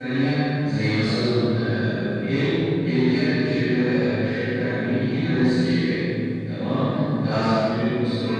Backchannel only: Yes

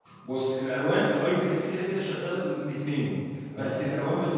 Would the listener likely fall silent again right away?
Yes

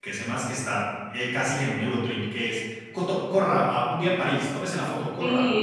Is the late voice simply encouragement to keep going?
No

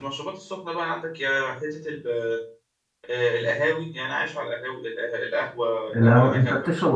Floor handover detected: Yes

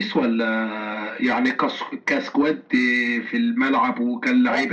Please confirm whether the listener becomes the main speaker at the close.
Yes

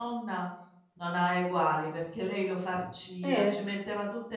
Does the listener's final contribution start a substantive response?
No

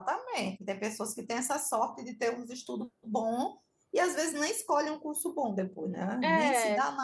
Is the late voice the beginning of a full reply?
No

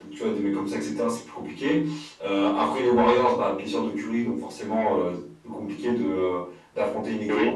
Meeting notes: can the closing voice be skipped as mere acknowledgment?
Yes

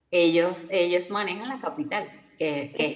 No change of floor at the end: Yes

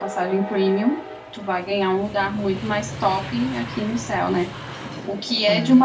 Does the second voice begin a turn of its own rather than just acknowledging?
No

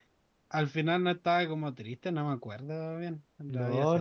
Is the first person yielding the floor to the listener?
Yes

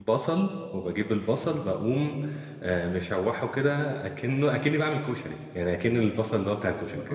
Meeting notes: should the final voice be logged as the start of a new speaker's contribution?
Yes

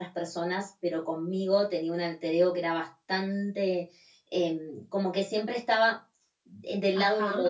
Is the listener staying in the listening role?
Yes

